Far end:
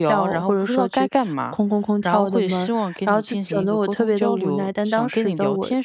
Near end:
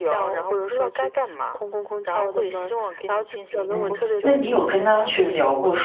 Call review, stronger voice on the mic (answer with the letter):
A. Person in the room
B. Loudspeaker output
A